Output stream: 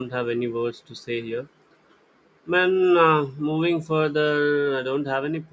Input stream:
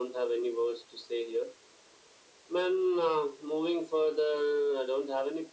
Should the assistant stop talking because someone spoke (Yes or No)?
No